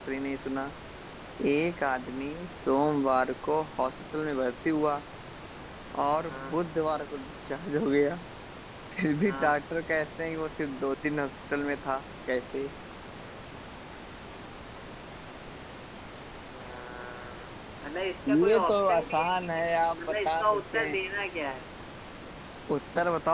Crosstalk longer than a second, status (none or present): present